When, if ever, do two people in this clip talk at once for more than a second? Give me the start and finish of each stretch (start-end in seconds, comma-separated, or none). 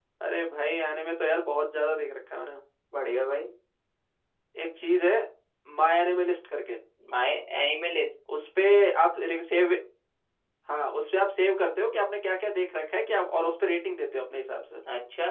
none